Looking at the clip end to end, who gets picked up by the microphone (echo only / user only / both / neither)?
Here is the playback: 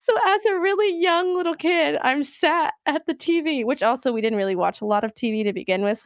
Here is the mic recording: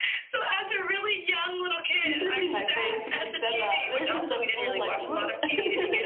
both